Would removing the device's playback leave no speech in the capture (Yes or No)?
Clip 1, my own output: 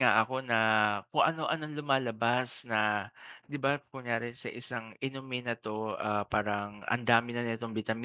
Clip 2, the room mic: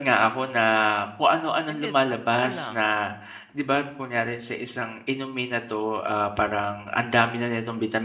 No